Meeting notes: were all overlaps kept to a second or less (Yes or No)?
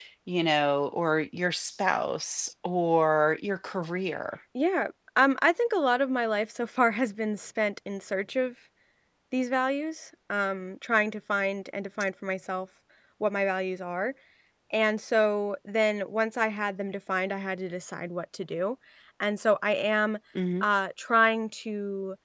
Yes